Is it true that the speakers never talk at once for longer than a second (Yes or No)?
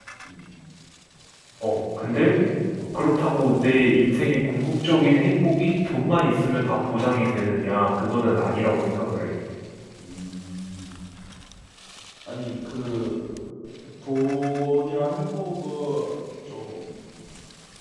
Yes